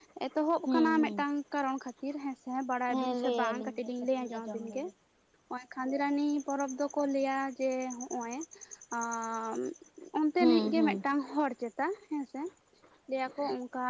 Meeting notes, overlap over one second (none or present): present